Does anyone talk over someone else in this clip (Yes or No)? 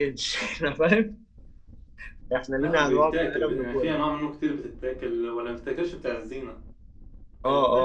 Yes